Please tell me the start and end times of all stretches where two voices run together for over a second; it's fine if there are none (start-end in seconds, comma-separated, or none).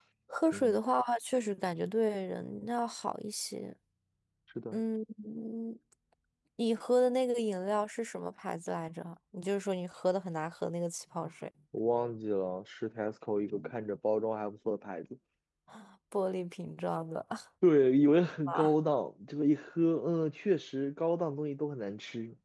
none